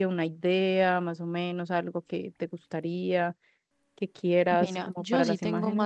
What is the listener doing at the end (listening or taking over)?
taking over